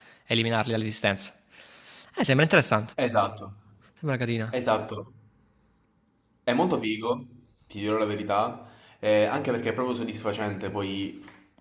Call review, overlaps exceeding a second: none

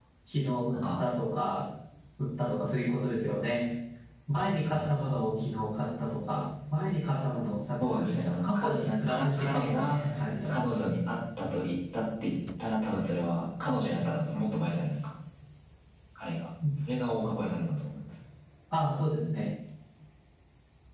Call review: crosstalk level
present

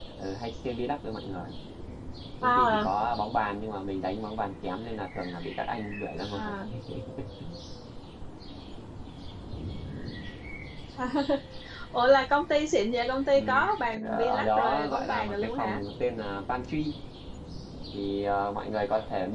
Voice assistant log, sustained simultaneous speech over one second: present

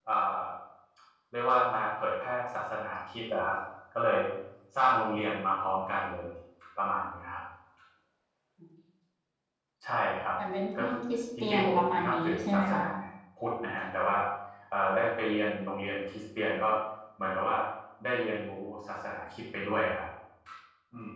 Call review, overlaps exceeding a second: present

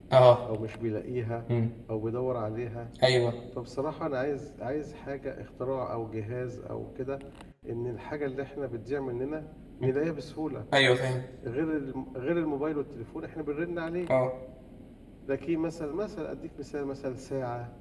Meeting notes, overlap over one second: none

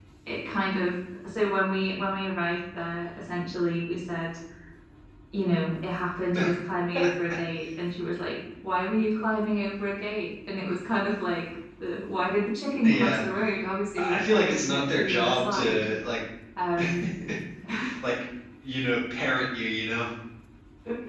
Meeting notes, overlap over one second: present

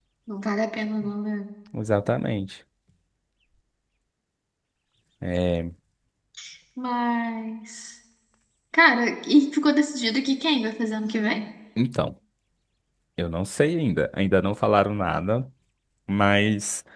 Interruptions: none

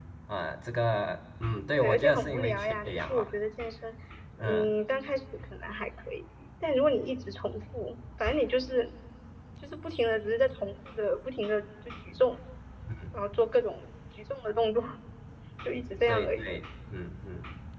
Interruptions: present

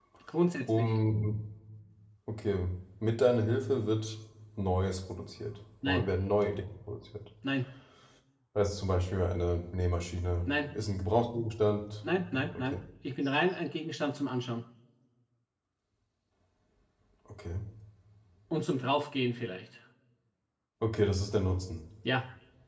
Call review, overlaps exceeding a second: none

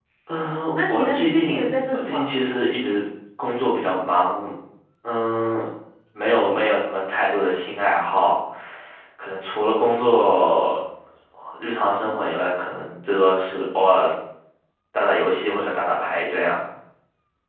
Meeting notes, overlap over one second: present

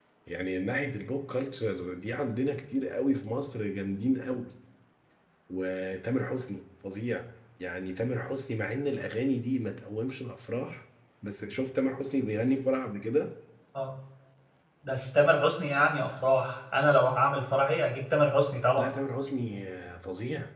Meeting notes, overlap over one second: none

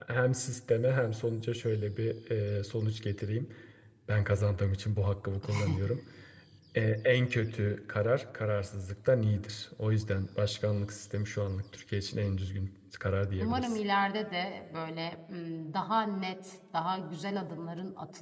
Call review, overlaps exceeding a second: none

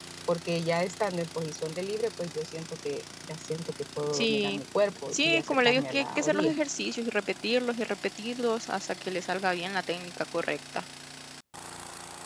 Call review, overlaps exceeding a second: present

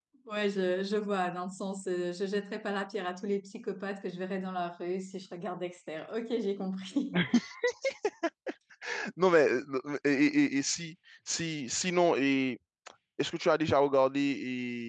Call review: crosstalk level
none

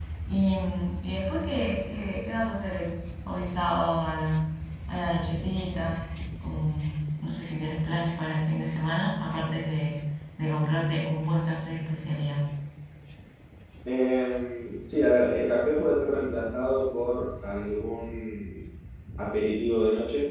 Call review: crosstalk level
none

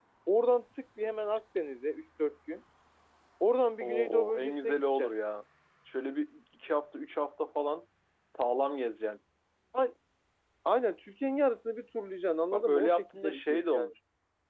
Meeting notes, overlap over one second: present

